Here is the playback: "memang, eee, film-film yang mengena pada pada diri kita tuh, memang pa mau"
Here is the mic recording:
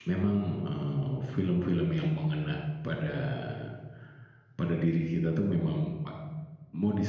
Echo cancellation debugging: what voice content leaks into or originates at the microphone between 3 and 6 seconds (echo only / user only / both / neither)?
echo only